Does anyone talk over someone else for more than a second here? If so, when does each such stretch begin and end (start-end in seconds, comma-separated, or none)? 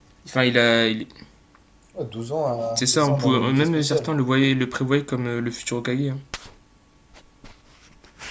2.8-4.1